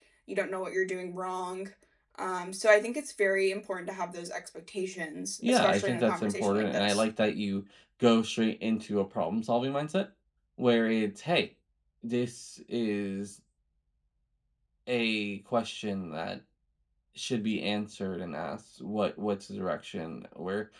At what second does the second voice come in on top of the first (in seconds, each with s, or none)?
5.4 s